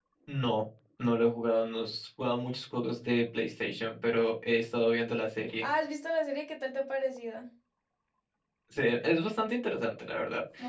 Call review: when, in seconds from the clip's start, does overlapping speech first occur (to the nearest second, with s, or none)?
none